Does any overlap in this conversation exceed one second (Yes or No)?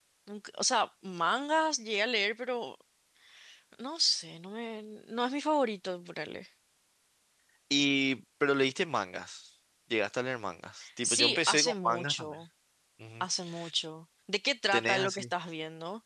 Yes